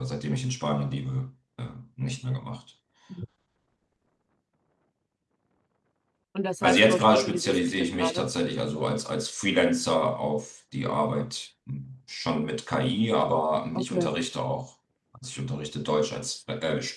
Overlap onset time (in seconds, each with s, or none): 6.6 s